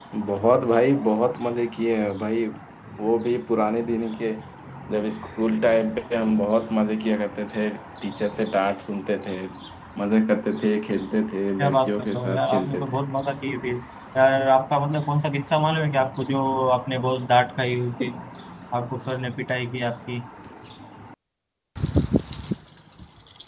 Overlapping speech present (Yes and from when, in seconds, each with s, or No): Yes, from 11.6 s